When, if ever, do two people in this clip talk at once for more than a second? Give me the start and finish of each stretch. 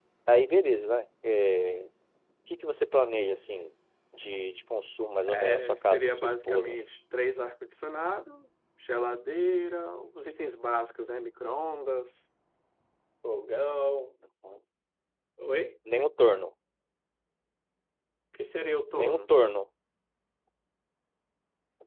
5.3-6.8

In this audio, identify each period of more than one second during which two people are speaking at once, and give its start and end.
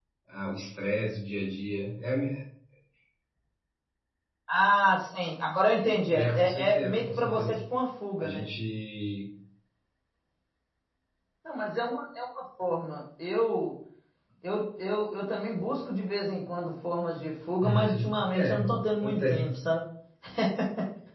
6.1-7.6, 17.6-19.6

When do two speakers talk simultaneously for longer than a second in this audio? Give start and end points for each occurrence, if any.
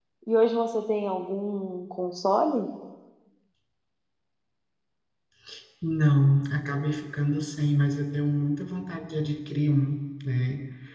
none

